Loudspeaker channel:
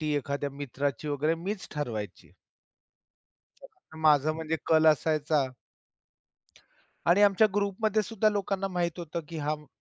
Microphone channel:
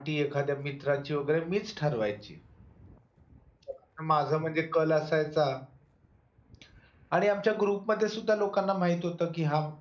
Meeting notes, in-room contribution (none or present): none